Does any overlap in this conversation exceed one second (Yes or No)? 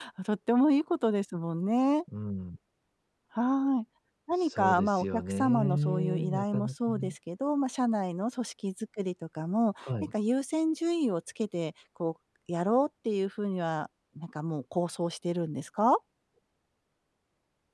Yes